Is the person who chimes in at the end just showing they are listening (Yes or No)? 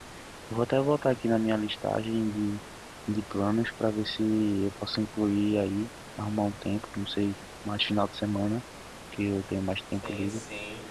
No